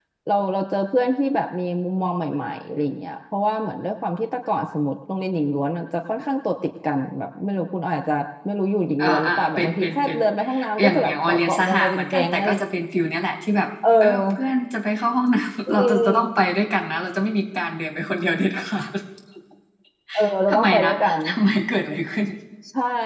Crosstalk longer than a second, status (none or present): present